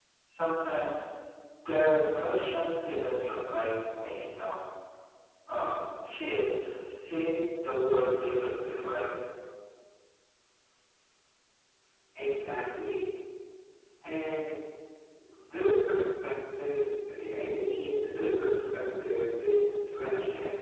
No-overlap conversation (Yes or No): Yes